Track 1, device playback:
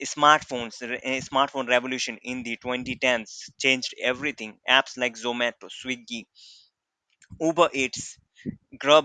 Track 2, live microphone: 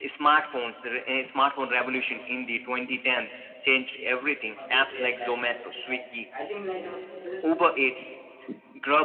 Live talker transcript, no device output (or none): who oftenly say that kind of things and i think like um, it is